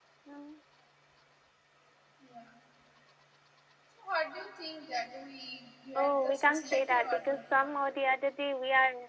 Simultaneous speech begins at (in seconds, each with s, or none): 6.0 s